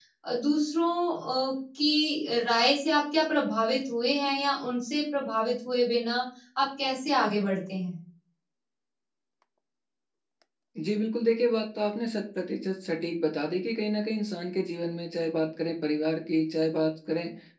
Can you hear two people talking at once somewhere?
No

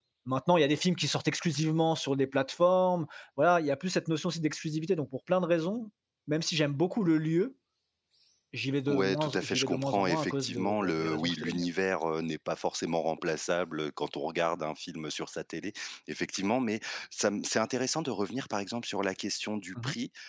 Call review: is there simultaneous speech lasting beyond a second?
Yes, from 8.9 s

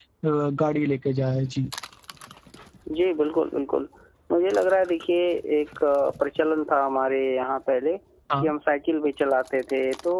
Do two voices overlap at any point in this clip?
No

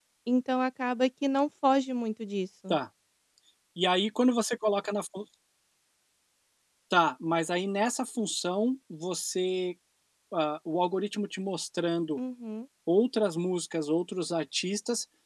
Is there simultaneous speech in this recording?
No

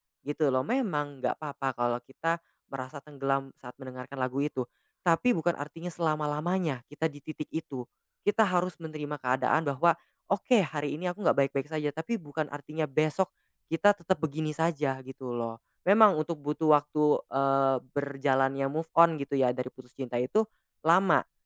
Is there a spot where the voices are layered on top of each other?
No

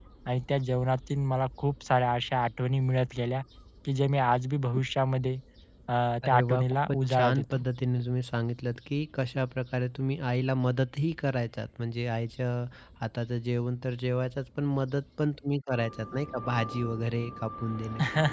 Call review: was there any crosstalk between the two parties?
Yes, from 6.2 s

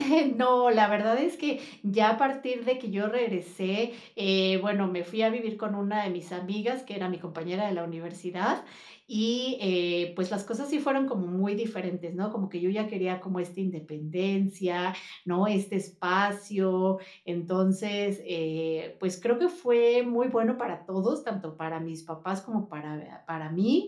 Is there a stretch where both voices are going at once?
No

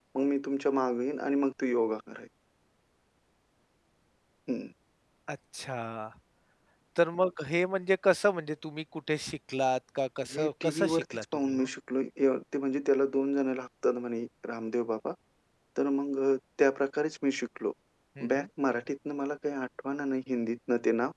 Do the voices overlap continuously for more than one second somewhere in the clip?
Yes, from 10.2 s

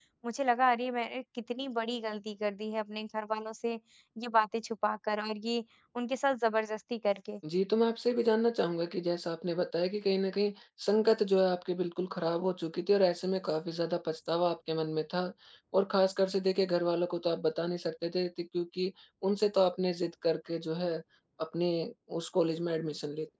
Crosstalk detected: No

